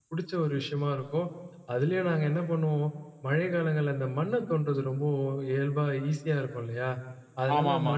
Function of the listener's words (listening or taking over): listening